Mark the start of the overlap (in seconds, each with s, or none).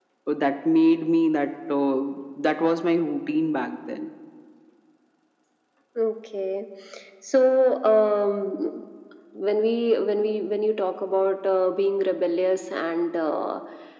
none